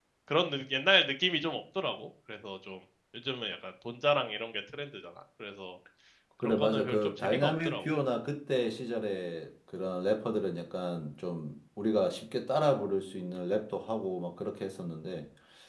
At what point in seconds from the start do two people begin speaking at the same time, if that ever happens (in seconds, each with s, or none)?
6.4 s